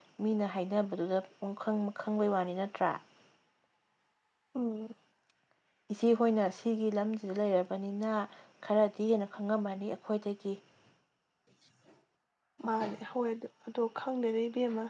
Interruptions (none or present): none